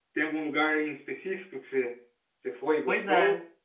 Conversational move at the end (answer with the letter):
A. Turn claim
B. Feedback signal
A